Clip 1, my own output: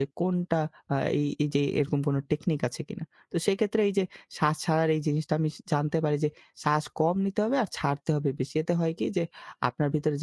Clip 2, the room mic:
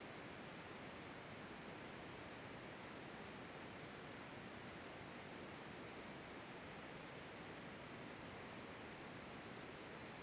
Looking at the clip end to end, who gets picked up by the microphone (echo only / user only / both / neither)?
neither